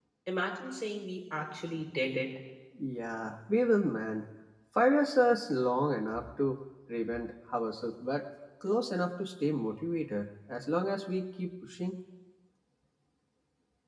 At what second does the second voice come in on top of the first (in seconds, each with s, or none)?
none